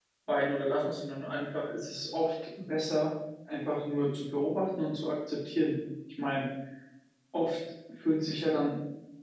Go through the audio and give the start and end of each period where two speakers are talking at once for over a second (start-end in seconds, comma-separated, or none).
none